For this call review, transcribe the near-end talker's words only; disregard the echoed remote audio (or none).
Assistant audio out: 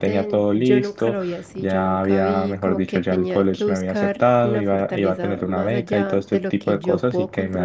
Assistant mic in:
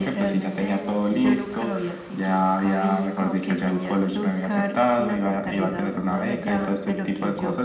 none